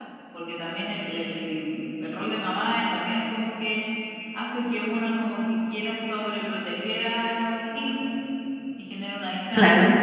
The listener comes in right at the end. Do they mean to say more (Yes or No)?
No